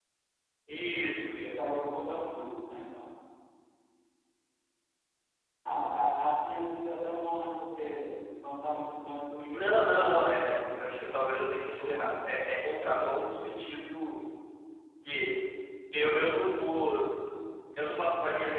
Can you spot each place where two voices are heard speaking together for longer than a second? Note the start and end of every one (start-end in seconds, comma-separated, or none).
9.5-10.8